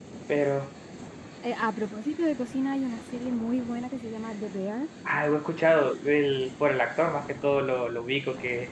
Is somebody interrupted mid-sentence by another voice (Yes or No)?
No